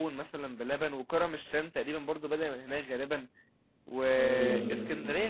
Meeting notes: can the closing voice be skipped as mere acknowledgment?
Yes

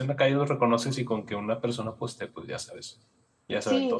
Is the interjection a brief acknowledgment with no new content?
No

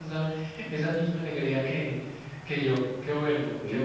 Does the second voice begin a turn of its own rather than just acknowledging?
Yes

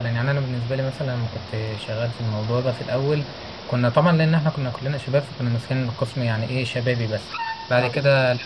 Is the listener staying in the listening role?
Yes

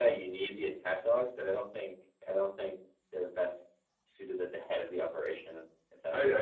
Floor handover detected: Yes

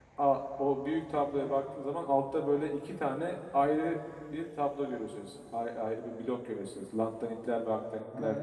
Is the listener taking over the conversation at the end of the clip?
Yes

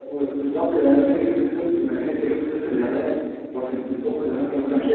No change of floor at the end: Yes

